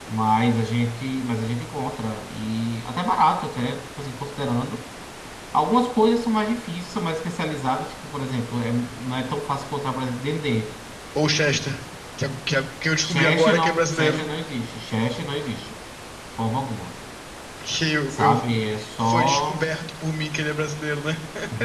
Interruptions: present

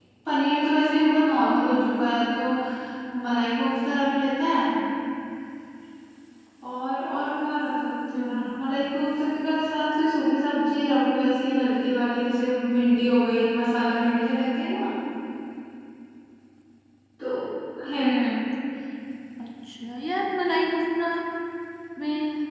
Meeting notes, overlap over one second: none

